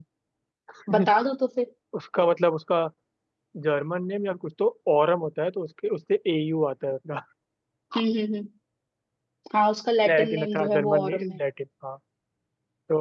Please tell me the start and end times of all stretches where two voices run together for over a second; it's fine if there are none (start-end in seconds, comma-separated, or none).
10.1-11.4